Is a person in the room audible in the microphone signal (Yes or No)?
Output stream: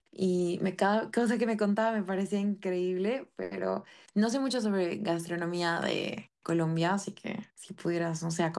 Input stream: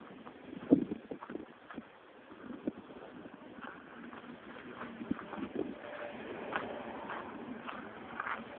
No